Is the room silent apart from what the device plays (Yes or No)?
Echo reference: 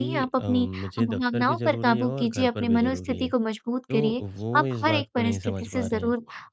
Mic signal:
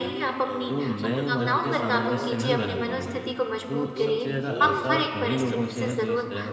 No